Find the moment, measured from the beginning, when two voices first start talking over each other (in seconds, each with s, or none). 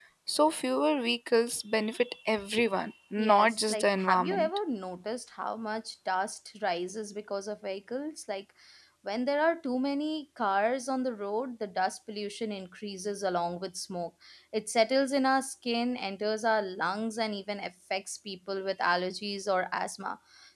3.2 s